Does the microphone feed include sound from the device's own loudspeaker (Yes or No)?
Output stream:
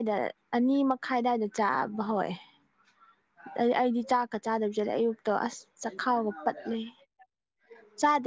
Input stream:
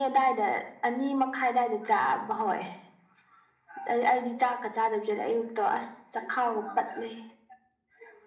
Yes